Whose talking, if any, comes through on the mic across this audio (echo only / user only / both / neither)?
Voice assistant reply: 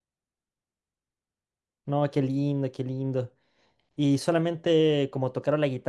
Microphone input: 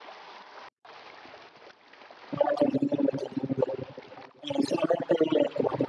echo only